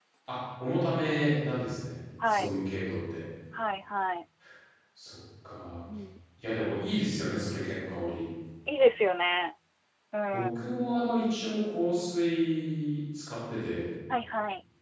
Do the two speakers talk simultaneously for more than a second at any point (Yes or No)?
No